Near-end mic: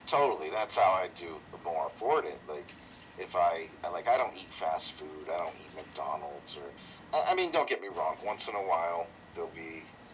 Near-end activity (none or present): none